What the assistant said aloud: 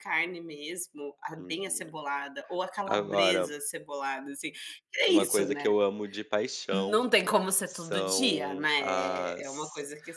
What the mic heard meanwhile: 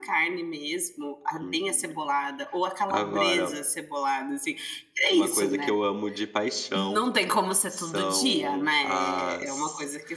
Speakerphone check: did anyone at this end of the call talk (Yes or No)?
No